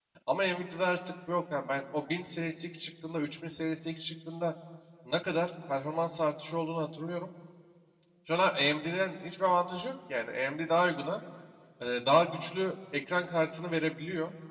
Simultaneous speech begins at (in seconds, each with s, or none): none